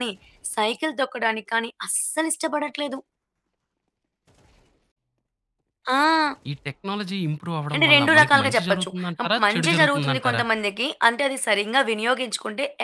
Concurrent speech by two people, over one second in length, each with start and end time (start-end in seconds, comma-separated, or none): 7.8-10.4